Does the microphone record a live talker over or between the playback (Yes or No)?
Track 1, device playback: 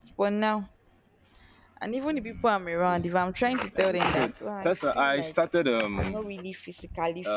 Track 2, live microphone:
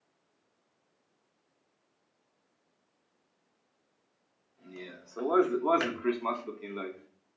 Yes